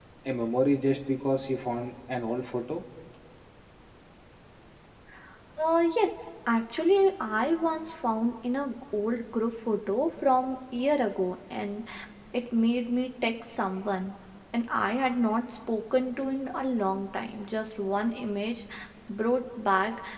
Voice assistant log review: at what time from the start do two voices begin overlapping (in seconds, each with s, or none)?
none